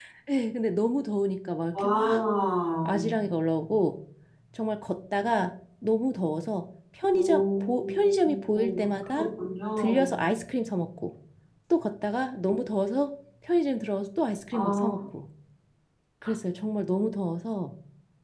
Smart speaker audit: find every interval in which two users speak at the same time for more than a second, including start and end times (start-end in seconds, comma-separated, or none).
7.1-9.2